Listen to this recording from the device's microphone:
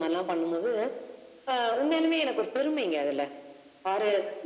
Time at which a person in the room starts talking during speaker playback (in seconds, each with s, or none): none